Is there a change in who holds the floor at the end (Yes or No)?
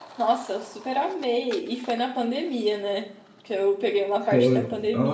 Yes